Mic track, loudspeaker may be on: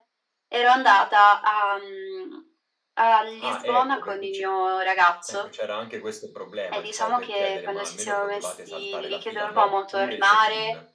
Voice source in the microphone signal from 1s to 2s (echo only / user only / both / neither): echo only